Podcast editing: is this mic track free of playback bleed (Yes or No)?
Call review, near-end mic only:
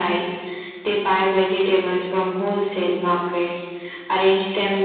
No